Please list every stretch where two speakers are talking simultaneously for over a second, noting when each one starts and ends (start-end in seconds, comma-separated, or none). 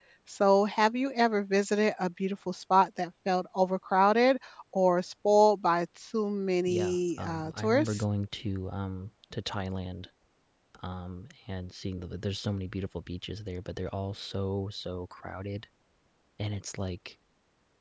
6.7-8.0